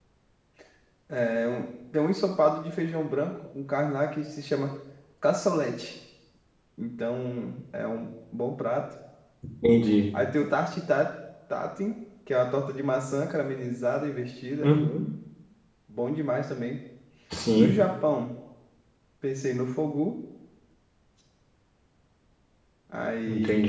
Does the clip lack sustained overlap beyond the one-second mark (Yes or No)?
Yes